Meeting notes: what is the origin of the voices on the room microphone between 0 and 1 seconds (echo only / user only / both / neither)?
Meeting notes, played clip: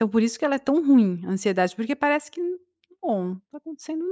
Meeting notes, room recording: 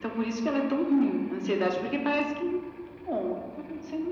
echo only